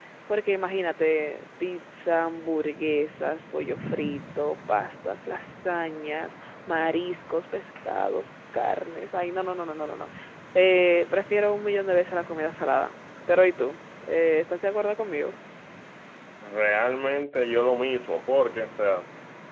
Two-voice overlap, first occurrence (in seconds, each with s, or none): none